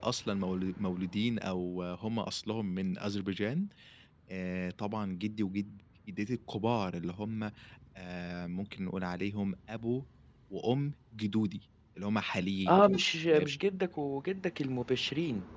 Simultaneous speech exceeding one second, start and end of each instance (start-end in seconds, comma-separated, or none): none